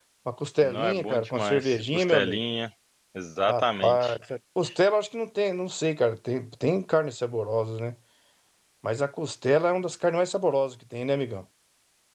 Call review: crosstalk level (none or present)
present